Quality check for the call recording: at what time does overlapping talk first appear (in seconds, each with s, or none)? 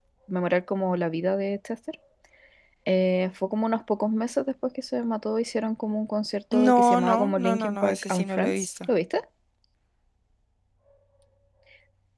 6.5 s